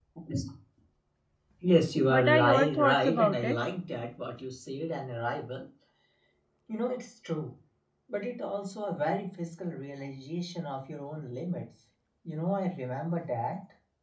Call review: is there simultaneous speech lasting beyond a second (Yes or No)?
Yes